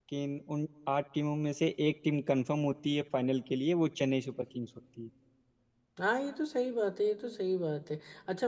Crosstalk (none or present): none